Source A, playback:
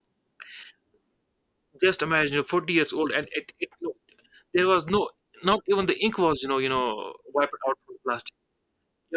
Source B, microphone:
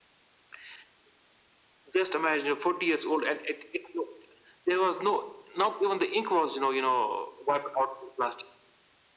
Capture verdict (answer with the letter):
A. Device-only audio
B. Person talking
A